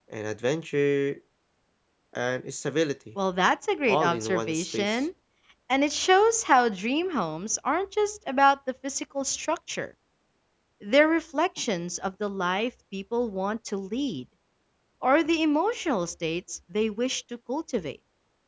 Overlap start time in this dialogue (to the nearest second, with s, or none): 4 s